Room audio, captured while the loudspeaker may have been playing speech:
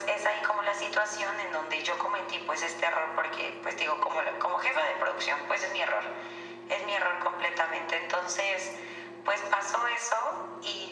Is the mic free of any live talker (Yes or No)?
Yes